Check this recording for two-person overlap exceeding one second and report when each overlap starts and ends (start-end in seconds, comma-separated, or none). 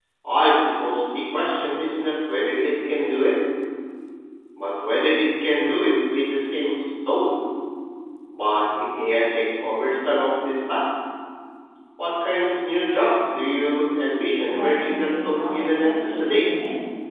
14.5-16.5